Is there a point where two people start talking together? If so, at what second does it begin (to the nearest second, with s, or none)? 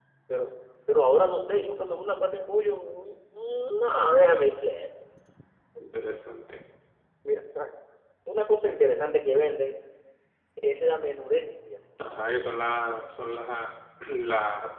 none